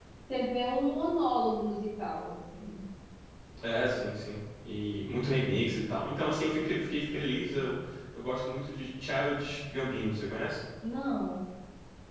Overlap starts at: none

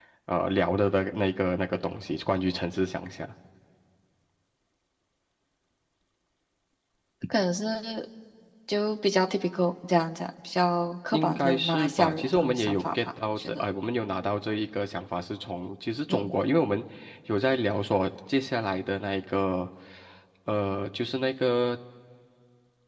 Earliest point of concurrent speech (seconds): 11.1 s

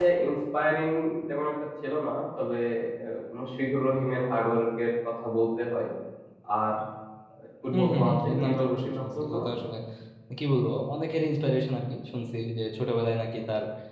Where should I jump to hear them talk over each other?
7.7 s

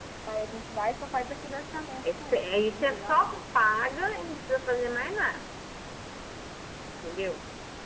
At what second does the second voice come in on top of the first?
2.0 s

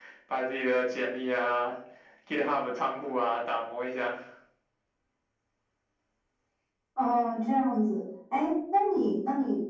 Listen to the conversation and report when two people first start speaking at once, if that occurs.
none

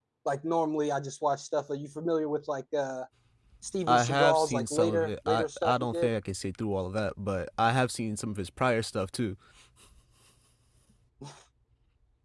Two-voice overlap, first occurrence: 3.9 s

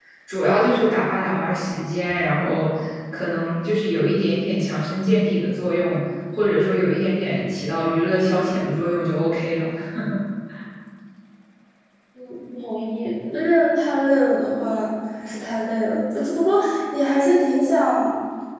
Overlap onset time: none

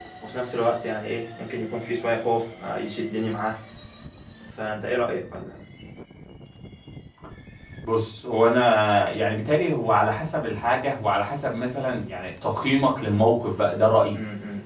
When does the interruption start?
none

